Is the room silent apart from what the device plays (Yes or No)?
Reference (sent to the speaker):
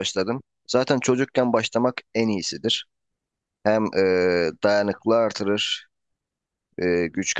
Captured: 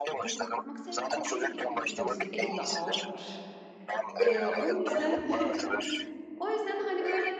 No